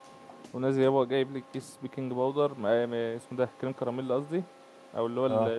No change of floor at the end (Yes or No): Yes